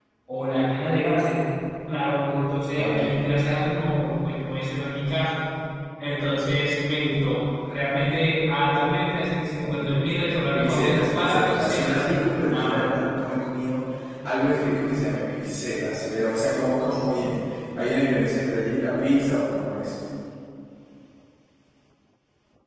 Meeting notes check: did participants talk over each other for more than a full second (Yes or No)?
Yes